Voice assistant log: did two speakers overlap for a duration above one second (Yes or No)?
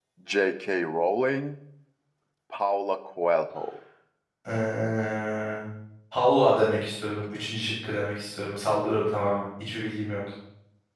No